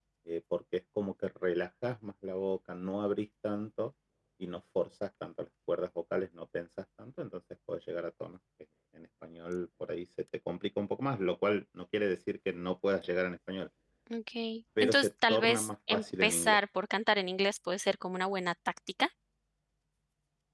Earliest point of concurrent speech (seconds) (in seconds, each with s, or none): 14.8 s